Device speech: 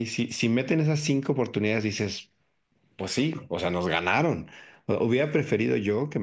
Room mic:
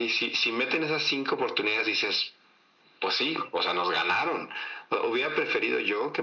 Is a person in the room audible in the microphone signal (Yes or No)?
No